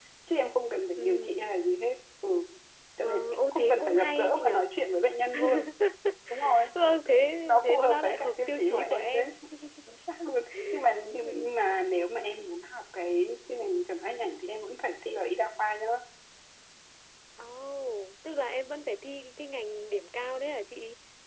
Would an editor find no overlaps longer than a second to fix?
No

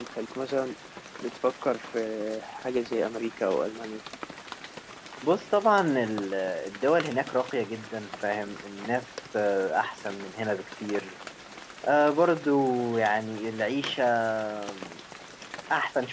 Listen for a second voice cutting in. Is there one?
No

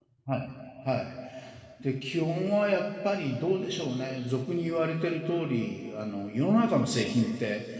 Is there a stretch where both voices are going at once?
No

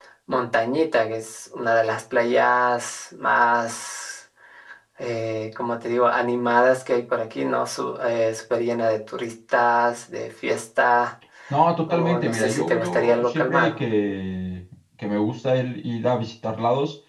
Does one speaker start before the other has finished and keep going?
Yes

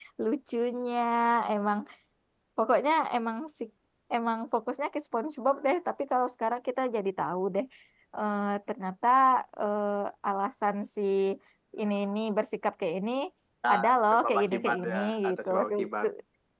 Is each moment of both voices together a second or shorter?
No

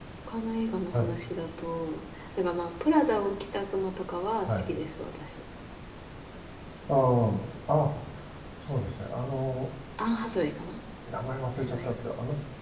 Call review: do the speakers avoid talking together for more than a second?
Yes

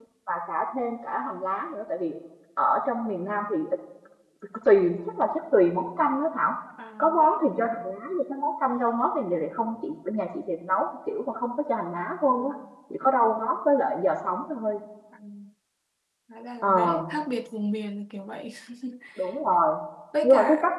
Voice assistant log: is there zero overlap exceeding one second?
Yes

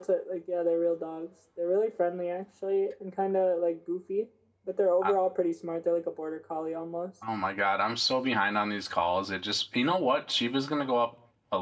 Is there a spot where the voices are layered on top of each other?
No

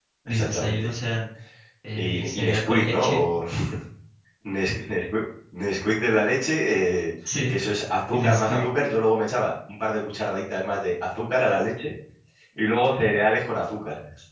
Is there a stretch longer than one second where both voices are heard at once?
Yes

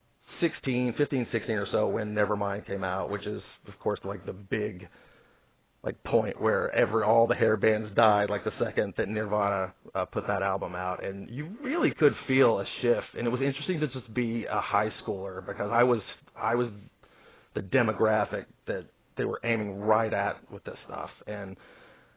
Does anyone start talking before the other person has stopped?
No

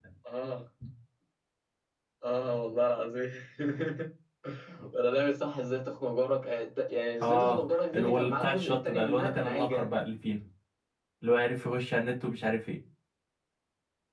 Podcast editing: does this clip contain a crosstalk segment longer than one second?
Yes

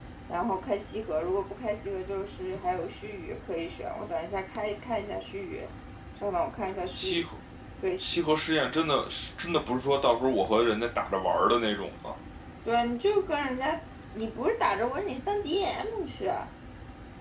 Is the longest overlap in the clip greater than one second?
No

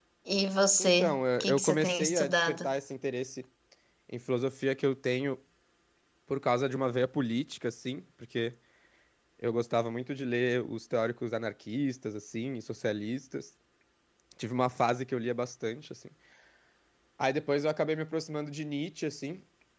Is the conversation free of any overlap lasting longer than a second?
No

